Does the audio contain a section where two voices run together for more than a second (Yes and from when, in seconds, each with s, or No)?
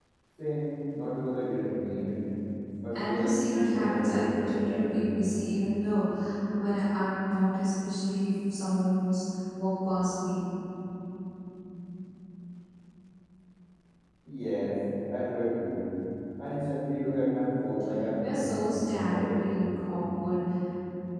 Yes, from 2.9 s